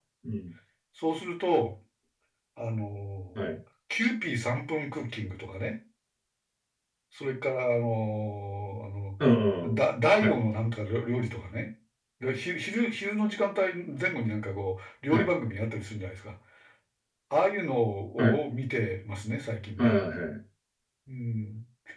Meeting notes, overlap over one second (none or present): none